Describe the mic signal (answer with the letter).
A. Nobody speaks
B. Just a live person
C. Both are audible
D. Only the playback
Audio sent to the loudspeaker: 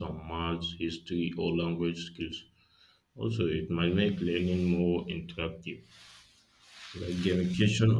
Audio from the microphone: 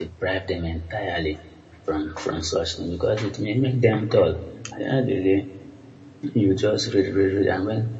B